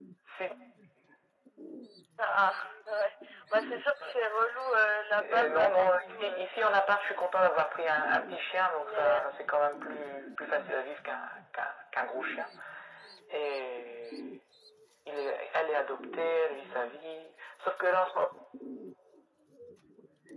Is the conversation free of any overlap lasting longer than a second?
No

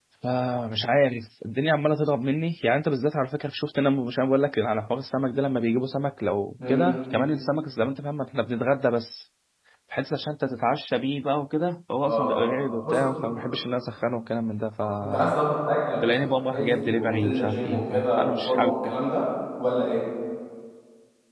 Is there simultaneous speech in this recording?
Yes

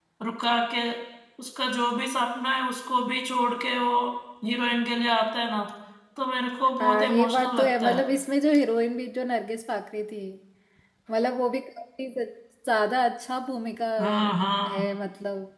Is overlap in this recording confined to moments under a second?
No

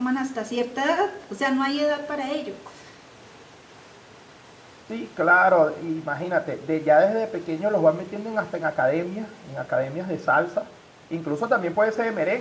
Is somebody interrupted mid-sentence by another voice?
No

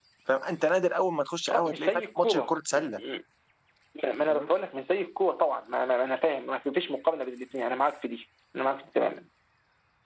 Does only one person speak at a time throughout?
No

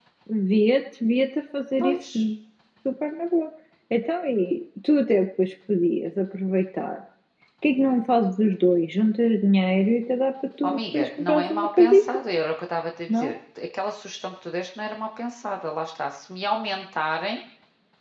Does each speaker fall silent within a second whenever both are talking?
No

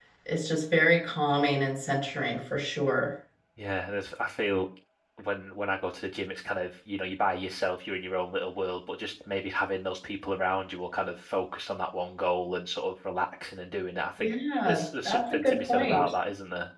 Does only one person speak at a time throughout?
No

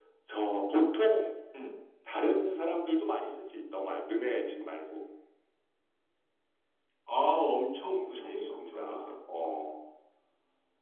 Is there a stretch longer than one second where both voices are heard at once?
Yes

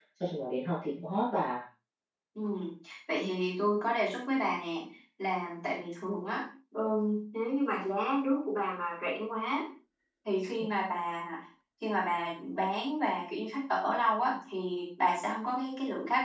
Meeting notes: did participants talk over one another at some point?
No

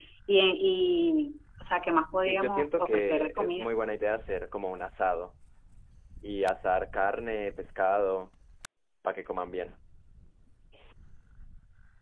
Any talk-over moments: Yes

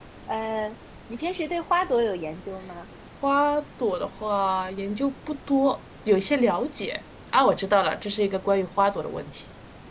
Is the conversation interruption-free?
Yes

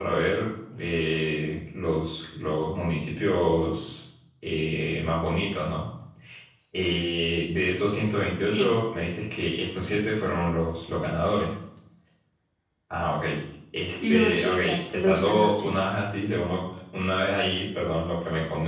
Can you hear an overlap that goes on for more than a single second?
Yes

